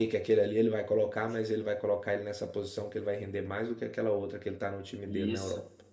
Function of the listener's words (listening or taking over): taking over